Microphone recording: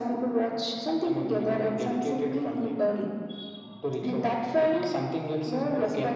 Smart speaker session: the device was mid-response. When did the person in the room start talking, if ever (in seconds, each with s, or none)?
none